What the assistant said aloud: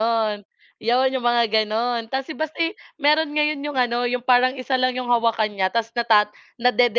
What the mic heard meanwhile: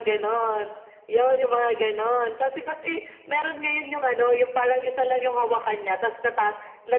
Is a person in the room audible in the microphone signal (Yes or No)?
No